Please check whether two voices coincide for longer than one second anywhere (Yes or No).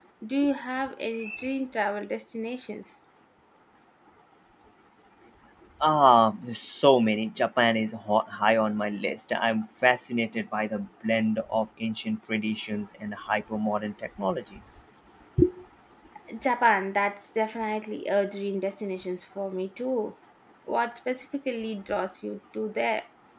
No